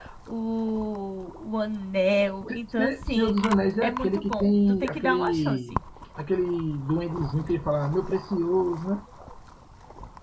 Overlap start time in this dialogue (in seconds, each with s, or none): 2.5 s